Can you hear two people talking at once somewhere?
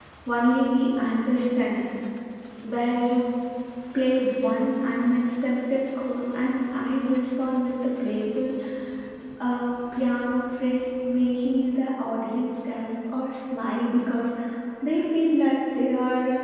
No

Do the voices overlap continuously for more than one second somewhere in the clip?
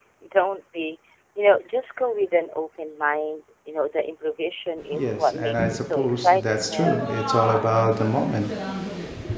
Yes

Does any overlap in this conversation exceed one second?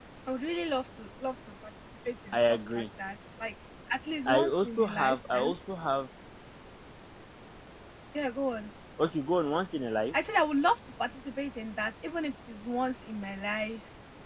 Yes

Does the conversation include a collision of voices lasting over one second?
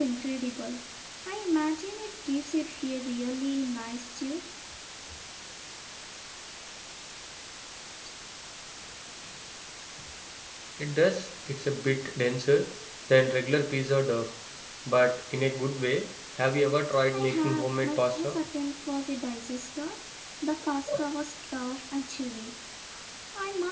Yes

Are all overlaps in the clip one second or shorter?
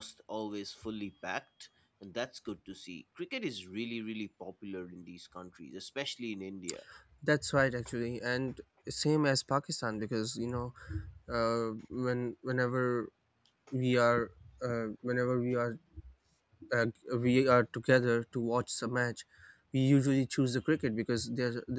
Yes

